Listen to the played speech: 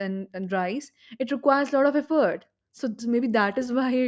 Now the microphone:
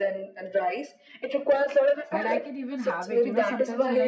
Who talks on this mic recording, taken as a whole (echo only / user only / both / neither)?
both